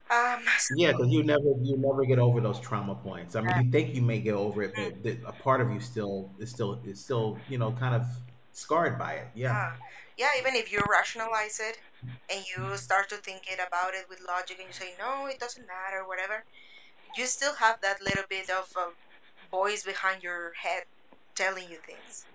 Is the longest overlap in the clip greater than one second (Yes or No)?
No